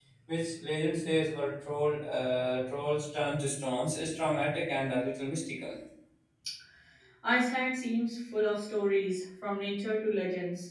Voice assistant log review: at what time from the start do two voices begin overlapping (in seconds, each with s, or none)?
none